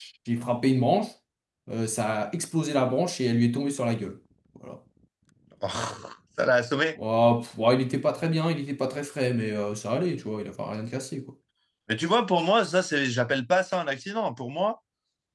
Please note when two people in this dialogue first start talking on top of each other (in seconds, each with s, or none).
none